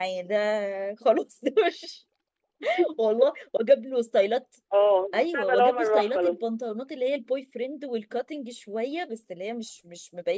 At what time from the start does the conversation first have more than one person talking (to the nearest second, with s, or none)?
5 s